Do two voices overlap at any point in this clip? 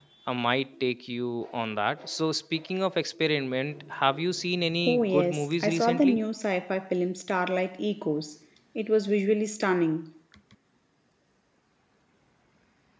Yes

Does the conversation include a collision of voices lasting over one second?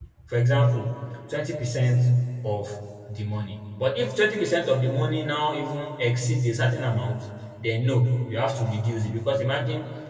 No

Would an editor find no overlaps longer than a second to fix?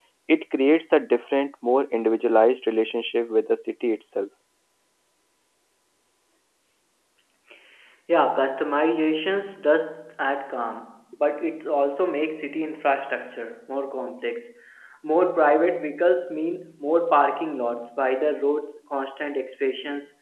Yes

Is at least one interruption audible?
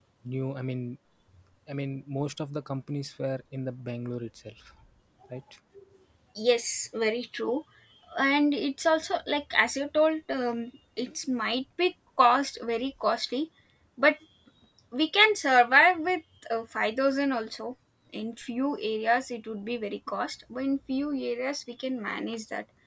No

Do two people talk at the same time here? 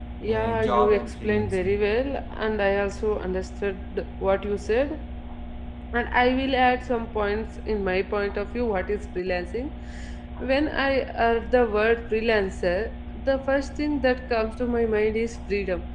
Yes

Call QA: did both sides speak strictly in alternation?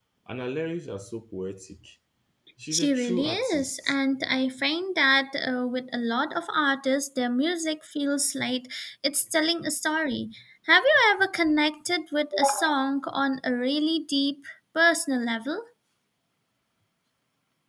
No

